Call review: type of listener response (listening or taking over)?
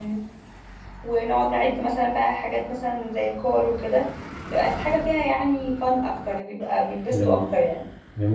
taking over